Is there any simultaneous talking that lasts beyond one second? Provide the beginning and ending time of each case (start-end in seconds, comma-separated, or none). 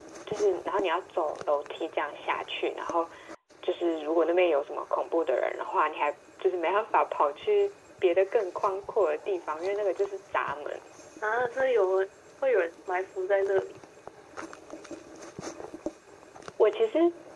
none